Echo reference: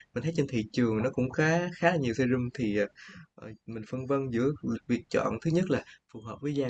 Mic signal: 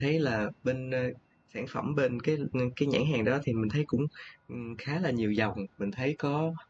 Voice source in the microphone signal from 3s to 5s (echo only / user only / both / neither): user only